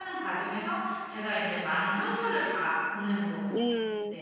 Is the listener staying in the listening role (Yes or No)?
No